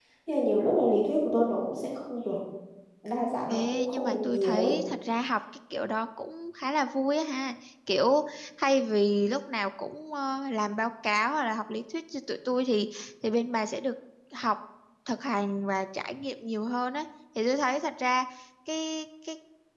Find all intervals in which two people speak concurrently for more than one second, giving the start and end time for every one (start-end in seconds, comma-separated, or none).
3.5-4.8